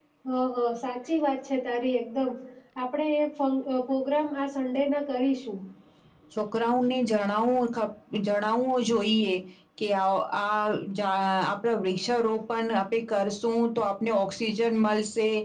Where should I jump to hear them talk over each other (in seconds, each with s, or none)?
none